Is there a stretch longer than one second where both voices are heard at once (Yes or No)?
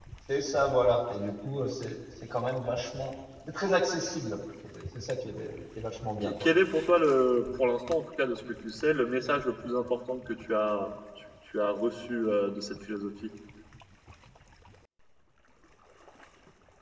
No